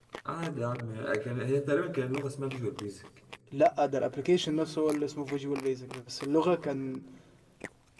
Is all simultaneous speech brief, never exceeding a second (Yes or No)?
Yes